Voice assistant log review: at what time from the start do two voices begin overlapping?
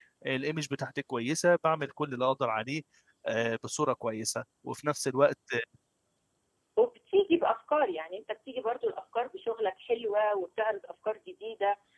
none

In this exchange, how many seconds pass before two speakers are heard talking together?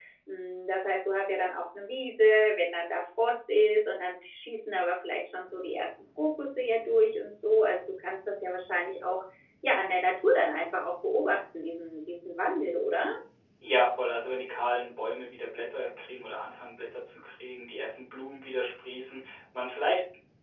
none

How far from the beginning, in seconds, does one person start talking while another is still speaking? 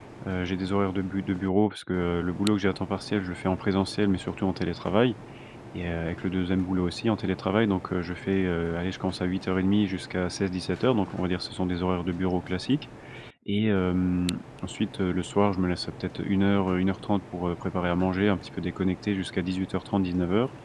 none

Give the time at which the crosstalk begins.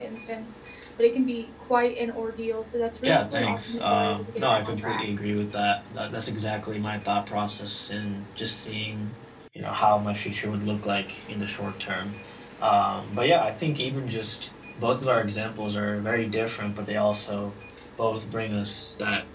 3.0 s

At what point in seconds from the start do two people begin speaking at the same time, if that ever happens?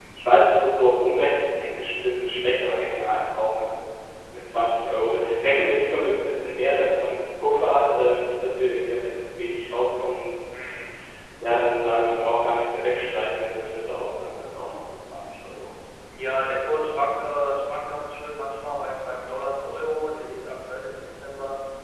none

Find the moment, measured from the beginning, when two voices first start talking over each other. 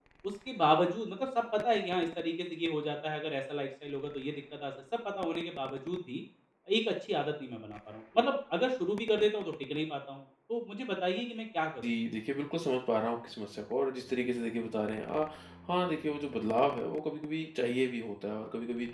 none

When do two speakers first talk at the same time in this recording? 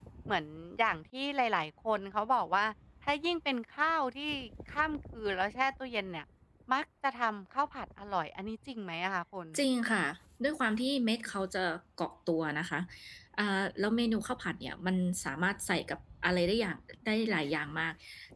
none

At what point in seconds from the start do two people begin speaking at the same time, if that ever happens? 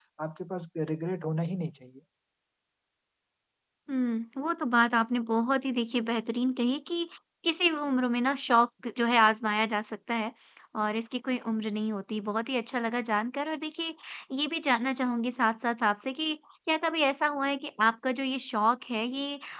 none

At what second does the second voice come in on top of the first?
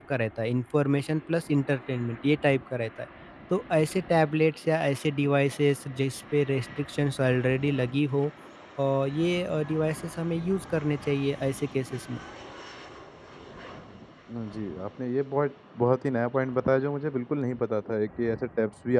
none

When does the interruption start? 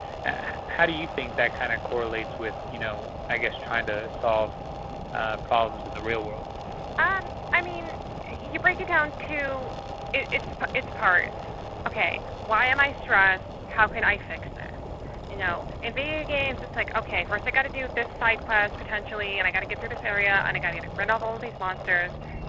none

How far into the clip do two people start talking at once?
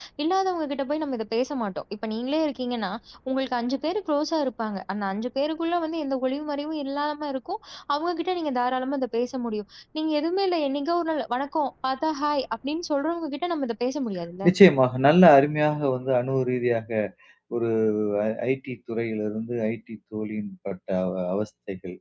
none

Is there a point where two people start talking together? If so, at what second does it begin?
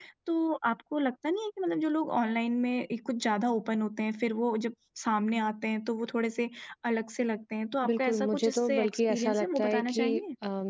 7.8 s

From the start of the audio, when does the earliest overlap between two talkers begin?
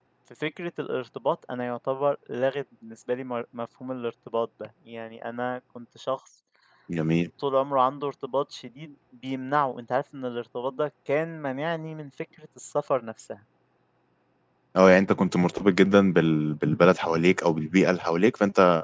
none

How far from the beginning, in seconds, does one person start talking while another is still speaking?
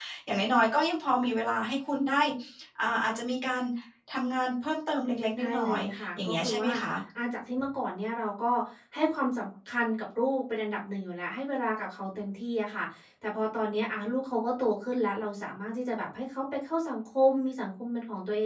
5.4 s

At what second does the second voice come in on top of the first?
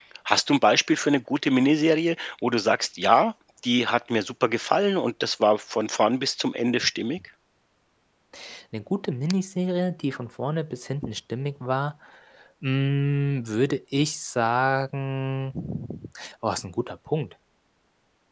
none

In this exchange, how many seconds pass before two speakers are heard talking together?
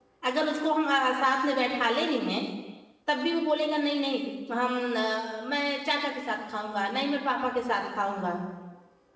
none

